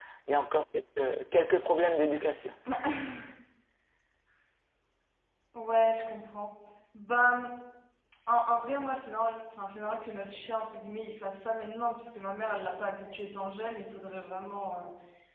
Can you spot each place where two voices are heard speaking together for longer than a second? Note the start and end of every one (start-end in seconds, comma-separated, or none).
none